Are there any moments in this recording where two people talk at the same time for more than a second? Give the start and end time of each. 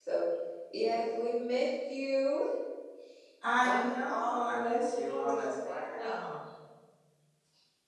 3.6-6.2

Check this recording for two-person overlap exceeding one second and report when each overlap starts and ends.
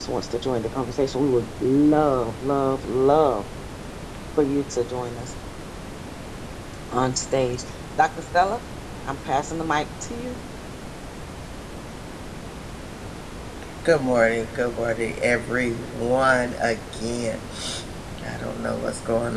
none

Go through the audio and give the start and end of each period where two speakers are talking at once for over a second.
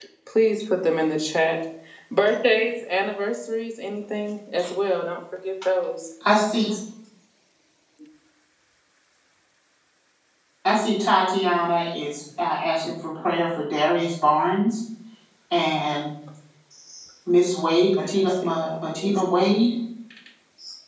17.8-19.6

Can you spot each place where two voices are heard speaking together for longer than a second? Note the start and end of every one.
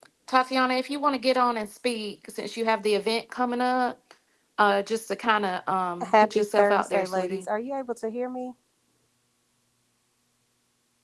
6.0-7.5

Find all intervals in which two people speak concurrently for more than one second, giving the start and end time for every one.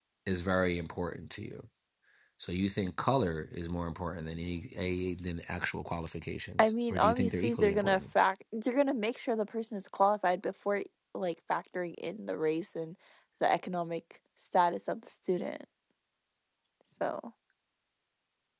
6.6-8.0

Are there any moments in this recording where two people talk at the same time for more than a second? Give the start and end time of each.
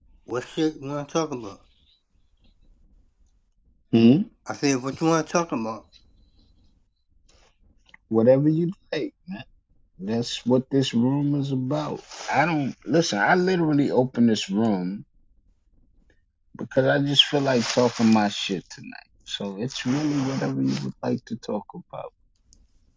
none

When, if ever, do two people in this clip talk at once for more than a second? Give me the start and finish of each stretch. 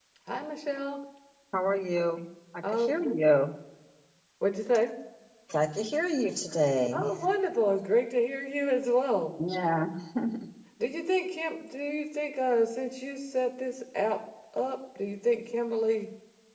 none

